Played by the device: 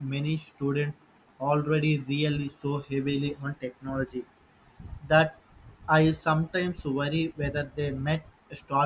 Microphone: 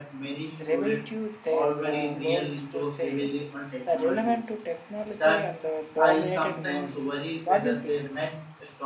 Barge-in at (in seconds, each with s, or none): 0.7 s